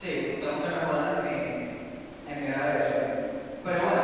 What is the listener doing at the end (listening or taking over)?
listening